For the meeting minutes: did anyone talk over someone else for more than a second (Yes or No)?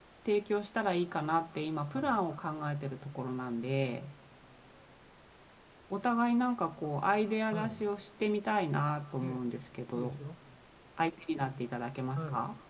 No